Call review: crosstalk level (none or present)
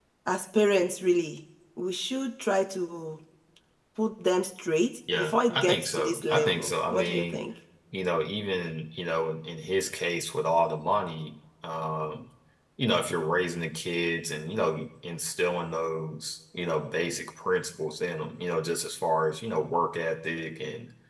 present